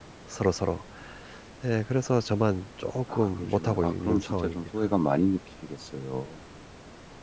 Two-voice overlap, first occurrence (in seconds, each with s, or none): 3.1 s